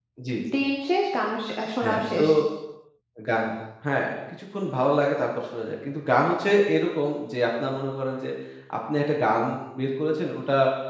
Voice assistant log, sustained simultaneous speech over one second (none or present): none